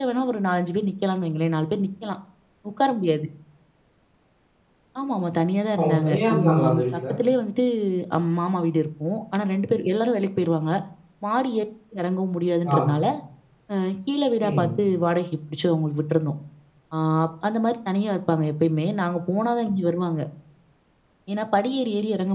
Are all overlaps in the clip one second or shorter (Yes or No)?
No